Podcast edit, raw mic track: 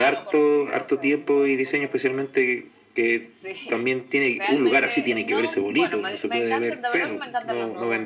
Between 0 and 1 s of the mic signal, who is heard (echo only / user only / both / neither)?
both